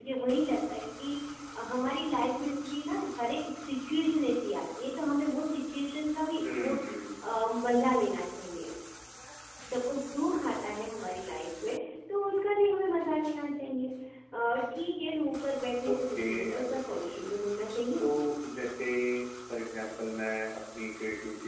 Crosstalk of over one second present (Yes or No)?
Yes